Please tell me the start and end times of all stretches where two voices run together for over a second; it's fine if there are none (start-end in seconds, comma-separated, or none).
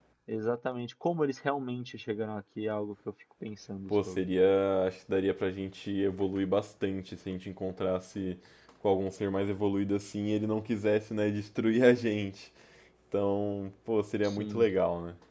none